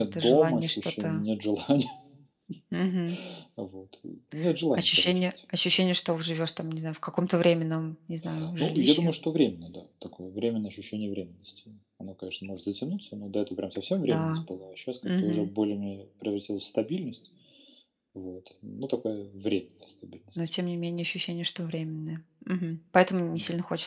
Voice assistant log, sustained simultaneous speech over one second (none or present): present